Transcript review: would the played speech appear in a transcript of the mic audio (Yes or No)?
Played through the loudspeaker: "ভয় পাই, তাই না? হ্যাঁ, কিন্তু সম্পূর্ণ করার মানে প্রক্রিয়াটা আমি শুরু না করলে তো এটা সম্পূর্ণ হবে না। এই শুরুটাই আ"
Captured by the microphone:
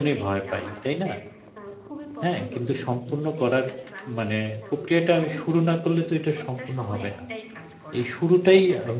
Yes